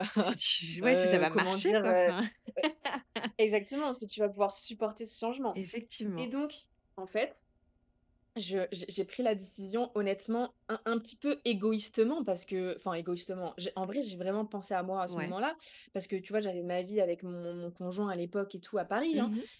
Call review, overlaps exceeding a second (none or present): present